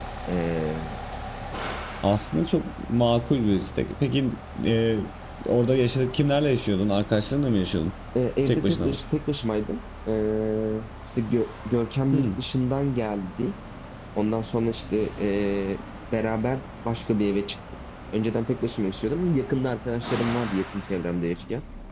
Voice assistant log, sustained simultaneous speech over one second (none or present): none